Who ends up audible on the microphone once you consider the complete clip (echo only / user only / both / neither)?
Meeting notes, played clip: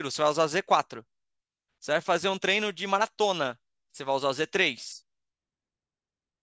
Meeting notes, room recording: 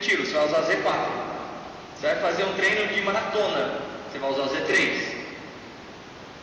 echo only